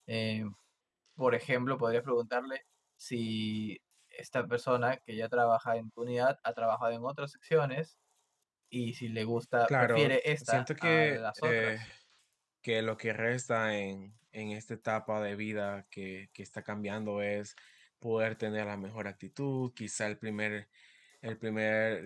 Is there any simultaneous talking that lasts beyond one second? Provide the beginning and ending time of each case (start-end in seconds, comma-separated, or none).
9.7-11.7